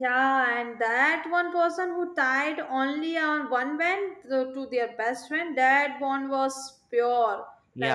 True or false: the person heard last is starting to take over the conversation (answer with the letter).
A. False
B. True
B